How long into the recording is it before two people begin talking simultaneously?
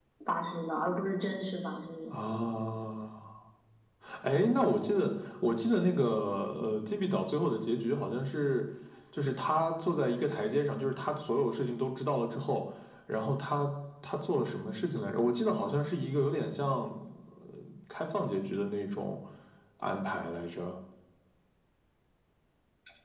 none

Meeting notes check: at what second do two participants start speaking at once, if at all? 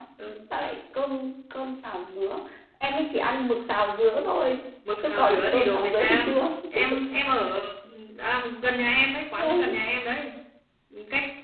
5.0 s

